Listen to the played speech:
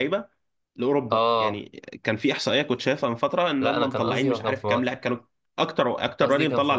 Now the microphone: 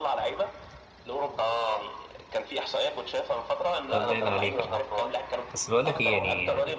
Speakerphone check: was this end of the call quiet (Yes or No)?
No